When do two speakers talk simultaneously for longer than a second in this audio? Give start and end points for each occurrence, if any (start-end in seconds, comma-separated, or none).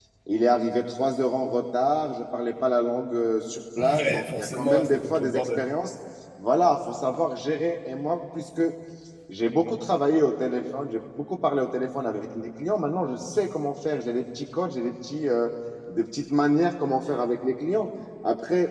3.8-5.7